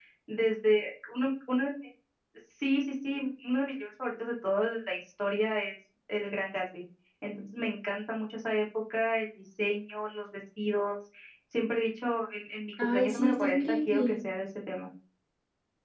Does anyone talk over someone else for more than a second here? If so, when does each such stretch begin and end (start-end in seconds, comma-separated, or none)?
12.8-14.3